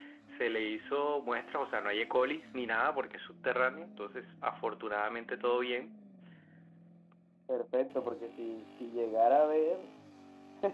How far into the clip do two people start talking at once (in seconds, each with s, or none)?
none